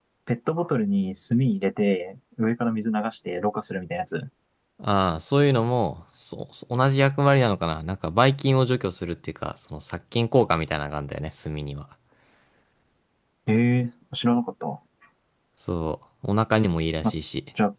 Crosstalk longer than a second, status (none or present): none